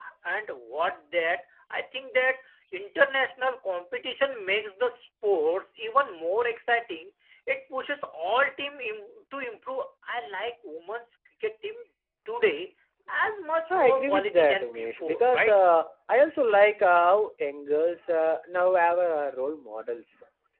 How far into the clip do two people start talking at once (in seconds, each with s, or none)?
13.7 s